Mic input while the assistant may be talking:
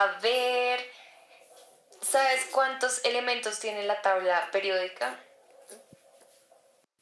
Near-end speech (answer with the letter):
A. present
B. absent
B